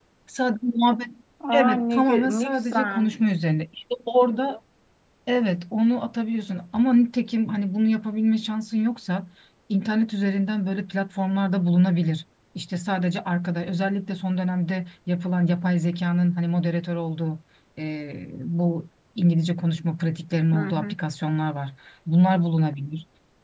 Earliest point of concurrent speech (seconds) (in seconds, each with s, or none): 1.5 s